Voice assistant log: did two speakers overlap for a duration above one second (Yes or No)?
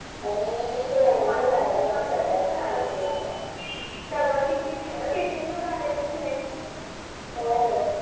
Yes